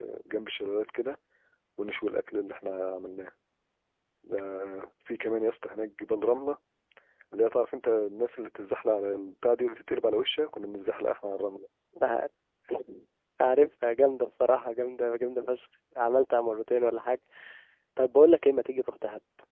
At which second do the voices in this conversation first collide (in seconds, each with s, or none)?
none